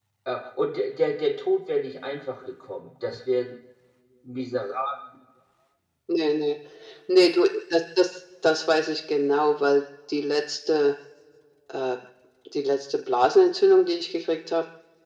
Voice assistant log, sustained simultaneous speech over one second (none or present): none